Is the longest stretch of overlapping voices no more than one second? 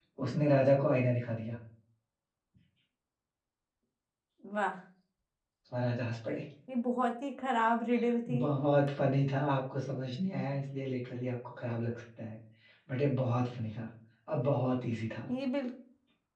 Yes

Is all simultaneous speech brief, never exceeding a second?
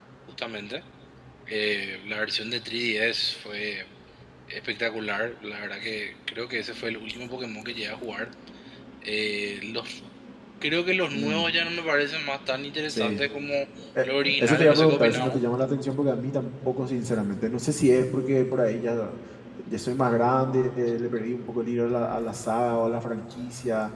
No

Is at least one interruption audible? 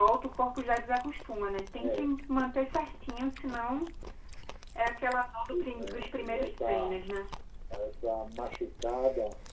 Yes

